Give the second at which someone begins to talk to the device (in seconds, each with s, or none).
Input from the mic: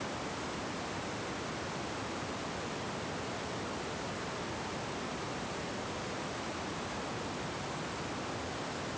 none